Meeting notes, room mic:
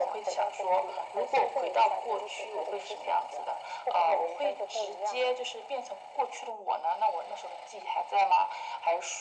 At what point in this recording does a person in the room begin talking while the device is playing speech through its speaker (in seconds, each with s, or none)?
none